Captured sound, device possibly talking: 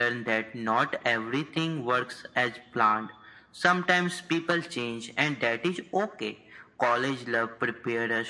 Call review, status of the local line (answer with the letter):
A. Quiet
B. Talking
A